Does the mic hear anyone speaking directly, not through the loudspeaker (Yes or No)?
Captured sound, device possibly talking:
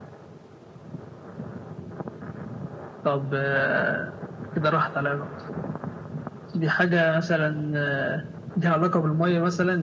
No